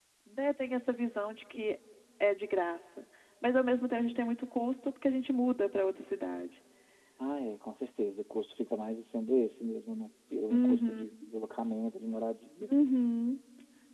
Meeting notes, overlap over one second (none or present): none